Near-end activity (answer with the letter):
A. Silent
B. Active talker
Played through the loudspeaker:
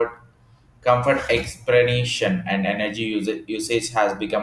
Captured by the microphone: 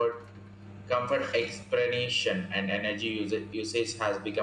A